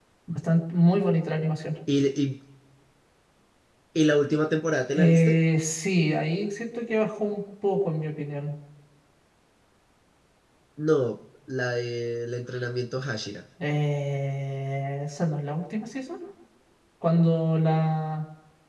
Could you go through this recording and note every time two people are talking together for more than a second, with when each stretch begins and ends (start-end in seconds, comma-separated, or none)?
none